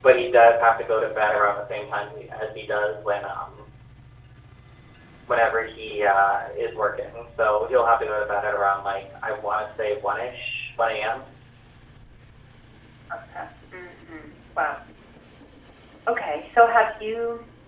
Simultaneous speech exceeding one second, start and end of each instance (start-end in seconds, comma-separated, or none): none